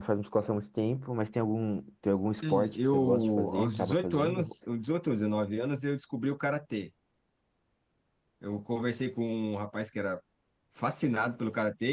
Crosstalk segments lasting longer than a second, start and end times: 2.5-4.5

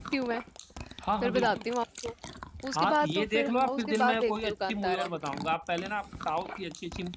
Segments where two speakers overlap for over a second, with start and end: 2.7-5.1

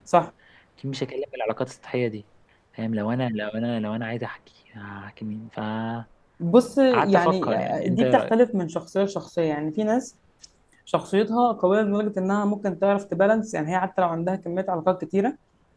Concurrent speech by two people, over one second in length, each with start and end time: 6.9-8.3

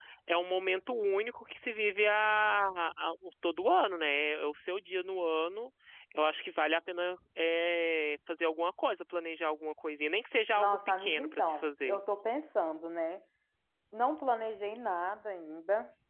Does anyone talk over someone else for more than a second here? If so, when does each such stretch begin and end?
10.6-12.0

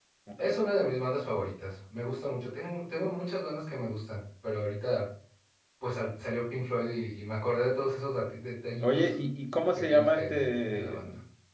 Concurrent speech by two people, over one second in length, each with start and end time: 9.8-11.0

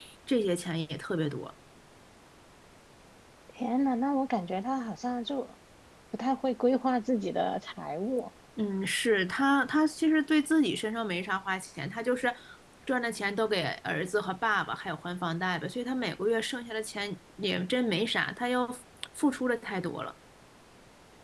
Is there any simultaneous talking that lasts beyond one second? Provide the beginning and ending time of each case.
none

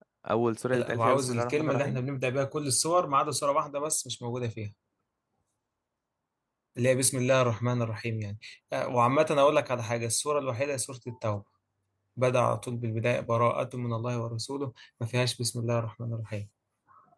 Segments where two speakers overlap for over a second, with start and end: 0.7-2.0

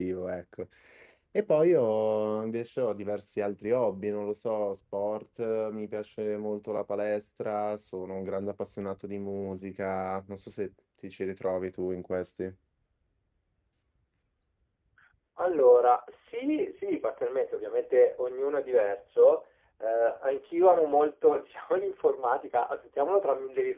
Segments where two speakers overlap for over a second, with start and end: none

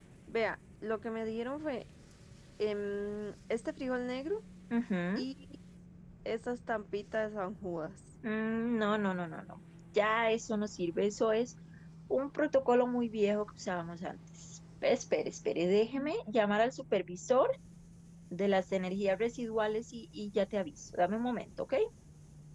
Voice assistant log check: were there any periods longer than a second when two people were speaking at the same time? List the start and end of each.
none

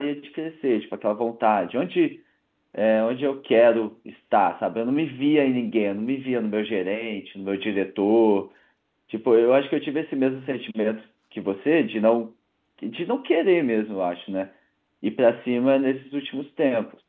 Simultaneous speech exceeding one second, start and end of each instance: none

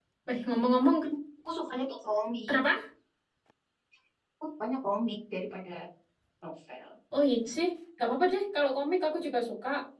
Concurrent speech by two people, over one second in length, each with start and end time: none

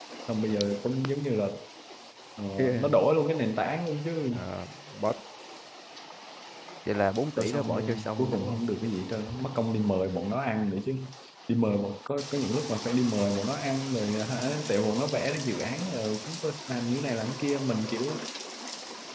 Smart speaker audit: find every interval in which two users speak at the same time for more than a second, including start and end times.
7.4-8.7

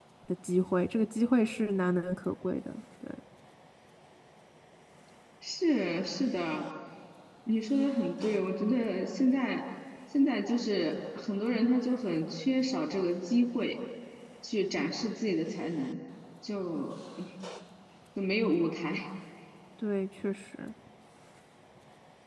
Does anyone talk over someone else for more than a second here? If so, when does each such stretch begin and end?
none

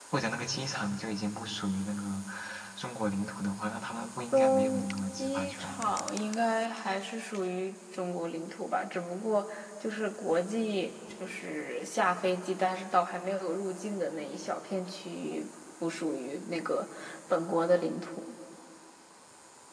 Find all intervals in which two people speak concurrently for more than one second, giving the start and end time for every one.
4.3-6.0

